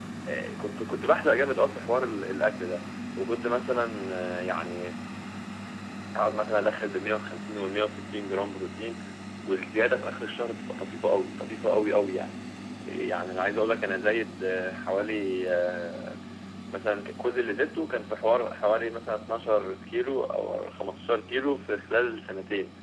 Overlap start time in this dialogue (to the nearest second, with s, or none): none